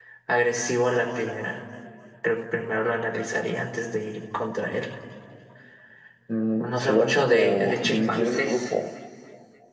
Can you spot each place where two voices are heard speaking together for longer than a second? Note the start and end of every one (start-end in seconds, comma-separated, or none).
6.5-8.6